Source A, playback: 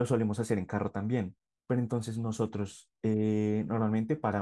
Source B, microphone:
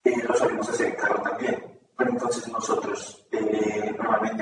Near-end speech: none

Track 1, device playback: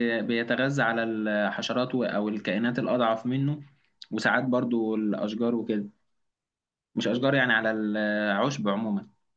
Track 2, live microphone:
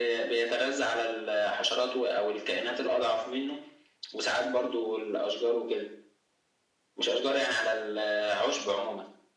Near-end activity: none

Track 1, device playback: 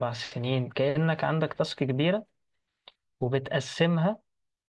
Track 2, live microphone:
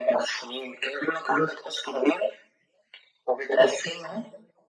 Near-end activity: none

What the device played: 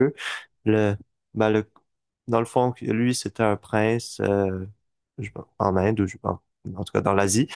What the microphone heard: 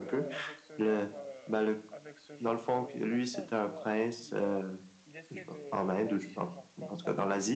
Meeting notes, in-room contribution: present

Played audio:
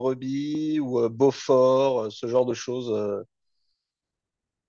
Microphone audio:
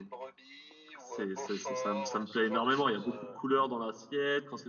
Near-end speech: present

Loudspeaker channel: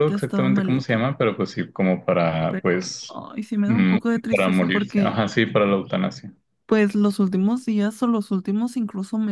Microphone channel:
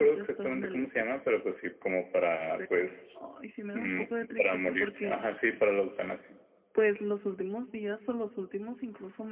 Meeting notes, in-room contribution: none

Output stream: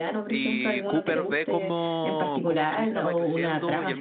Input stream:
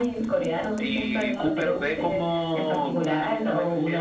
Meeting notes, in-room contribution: none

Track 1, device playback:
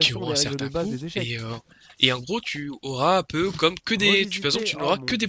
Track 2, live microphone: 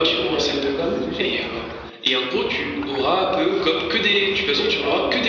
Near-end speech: none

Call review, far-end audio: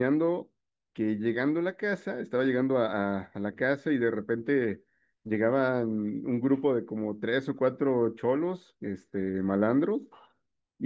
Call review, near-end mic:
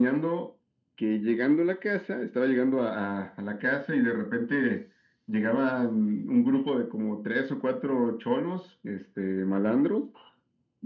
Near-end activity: none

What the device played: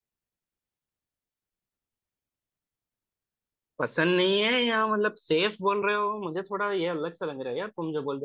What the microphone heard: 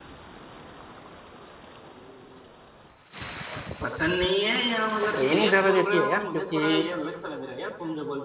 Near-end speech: present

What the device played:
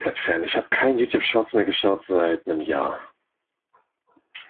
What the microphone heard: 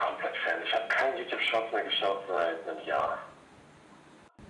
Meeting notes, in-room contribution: none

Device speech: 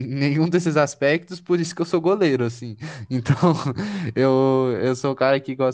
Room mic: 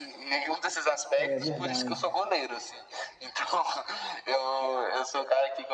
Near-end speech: present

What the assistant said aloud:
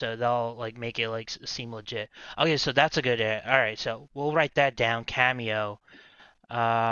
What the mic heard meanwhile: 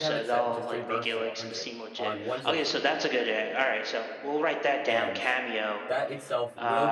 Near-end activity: present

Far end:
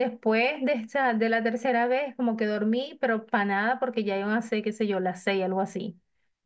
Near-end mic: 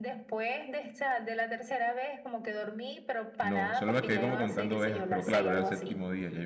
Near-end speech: present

